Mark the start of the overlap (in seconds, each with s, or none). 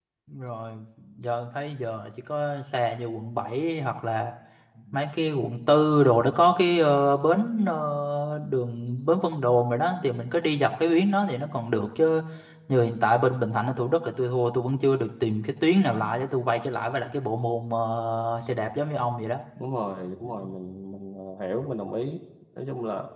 none